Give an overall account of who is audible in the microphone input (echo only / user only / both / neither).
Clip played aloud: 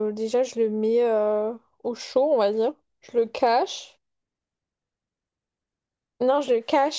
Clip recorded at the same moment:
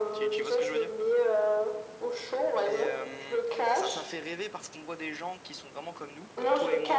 both